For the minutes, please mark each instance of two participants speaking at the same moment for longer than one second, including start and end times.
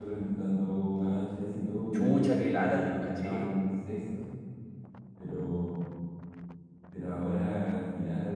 1.9-3.5

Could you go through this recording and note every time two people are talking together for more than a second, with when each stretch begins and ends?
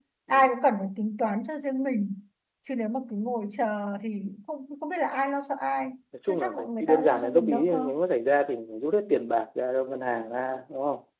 6.3-7.8

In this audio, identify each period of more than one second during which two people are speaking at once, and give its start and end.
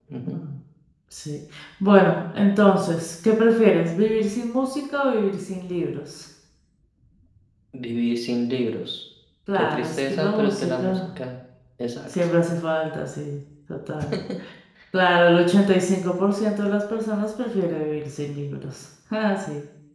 9.5-11.1

